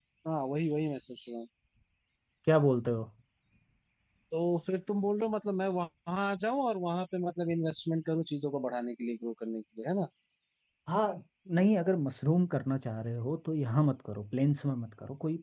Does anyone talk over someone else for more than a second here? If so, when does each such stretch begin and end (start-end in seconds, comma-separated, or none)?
none